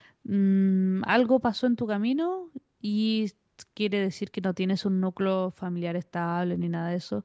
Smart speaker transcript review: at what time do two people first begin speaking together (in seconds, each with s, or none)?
none